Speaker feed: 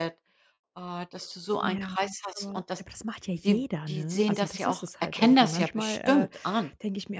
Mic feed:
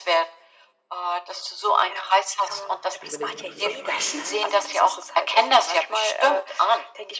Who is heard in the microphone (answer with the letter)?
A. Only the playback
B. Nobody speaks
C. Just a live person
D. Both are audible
D